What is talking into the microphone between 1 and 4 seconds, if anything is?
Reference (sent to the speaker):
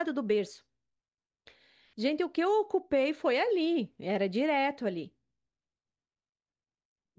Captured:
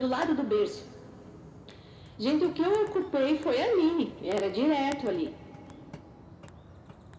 echo only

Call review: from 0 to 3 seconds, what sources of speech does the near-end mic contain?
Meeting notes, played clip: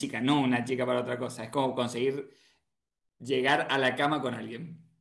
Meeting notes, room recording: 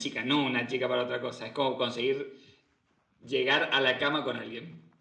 echo only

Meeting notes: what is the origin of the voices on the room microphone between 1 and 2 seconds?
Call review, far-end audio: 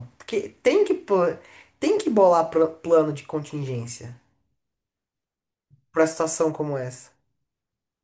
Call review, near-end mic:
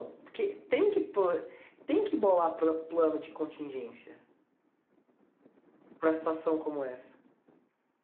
echo only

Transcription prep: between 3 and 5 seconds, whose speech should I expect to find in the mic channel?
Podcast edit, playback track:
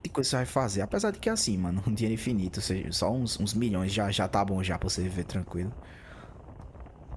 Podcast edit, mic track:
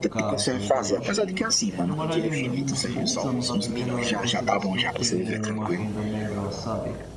both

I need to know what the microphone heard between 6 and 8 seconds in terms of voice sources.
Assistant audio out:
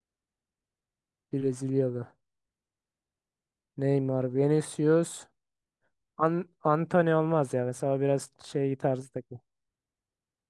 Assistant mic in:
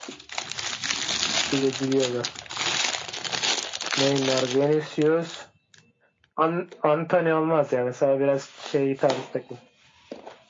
echo only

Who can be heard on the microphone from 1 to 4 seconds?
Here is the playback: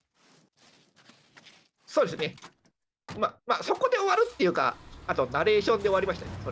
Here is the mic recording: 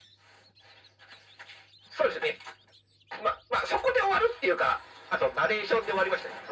echo only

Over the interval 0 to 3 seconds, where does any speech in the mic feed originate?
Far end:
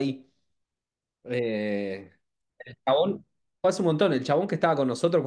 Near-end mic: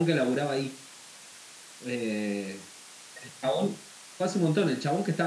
echo only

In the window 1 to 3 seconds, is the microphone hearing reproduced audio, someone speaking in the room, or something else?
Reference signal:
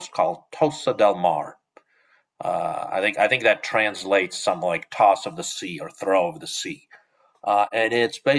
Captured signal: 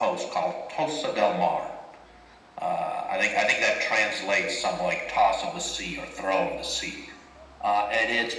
echo only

